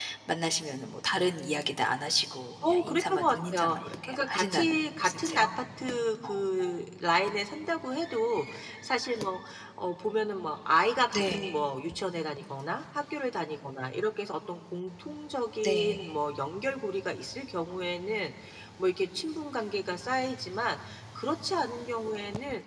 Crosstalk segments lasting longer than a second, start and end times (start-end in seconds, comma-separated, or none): 2.6-5.5